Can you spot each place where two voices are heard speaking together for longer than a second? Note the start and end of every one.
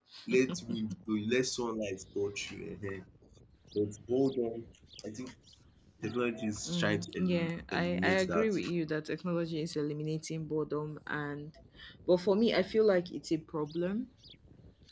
6.6-8.6

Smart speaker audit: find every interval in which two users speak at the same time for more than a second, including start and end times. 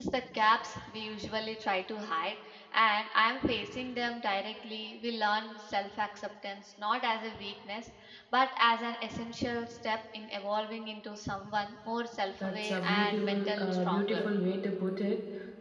12.4-14.3

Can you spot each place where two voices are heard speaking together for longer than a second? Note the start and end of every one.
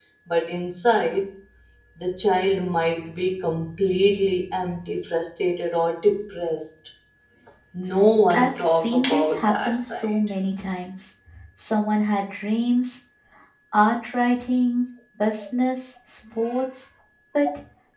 8.3-10.1

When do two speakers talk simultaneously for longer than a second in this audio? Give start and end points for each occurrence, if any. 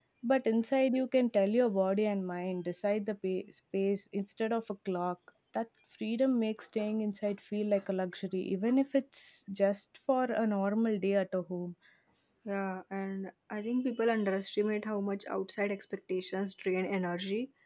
none

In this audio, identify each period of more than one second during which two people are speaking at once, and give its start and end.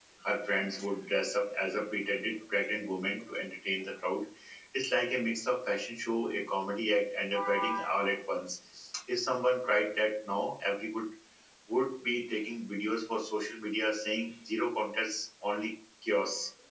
none

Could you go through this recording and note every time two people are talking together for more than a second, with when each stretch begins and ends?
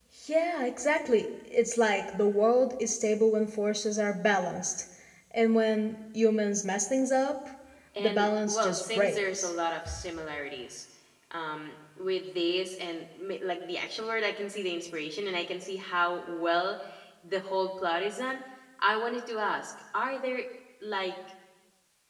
8.0-9.5

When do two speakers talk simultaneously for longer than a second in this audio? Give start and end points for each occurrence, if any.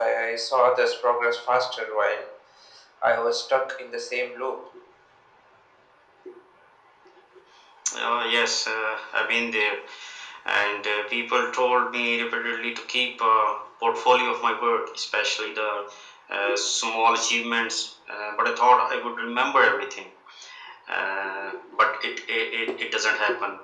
none

